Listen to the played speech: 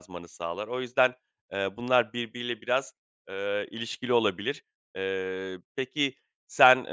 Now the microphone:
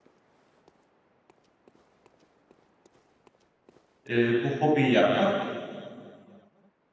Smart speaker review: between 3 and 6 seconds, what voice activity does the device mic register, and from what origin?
user only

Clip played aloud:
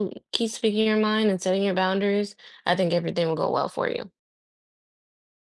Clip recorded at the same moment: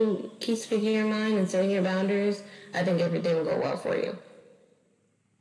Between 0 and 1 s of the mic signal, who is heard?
echo only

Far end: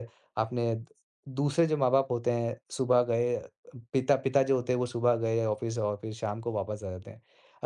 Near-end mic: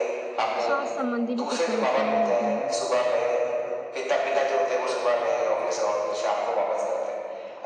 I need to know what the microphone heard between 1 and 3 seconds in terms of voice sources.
both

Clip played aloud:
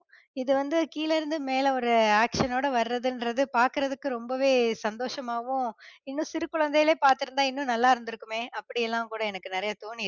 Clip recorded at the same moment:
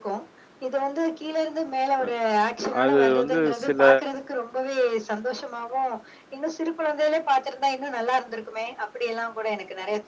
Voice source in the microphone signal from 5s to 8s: echo only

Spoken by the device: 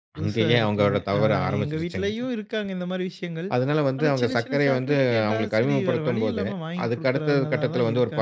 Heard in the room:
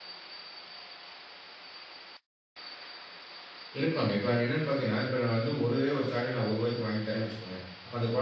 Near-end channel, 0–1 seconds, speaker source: neither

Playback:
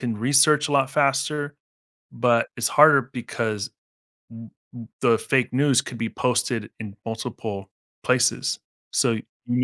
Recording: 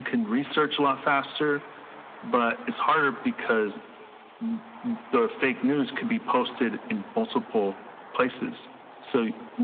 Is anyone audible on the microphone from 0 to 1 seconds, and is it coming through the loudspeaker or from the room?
echo only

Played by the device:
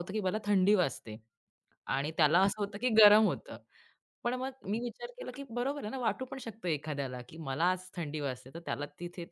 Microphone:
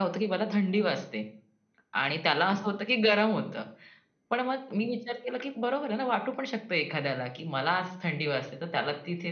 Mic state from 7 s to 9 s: echo only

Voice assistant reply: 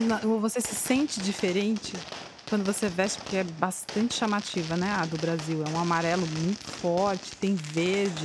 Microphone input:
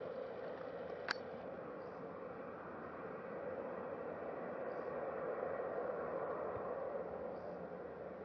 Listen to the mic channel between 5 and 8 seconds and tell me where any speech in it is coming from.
neither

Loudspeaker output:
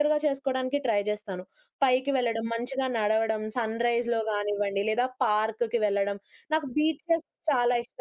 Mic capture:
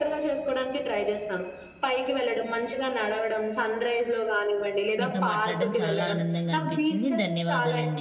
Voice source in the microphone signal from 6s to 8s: both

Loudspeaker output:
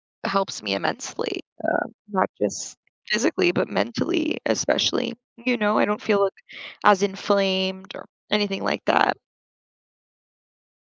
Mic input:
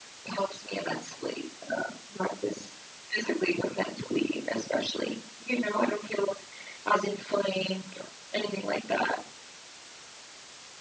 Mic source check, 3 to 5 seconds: echo only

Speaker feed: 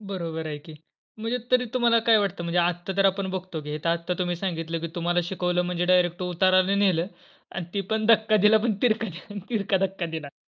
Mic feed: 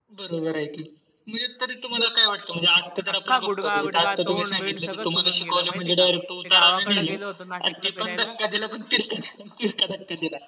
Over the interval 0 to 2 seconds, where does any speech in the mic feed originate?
echo only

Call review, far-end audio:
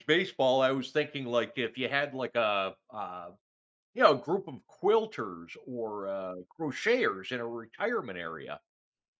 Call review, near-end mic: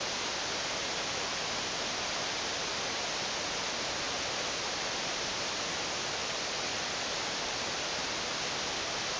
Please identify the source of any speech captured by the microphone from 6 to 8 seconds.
neither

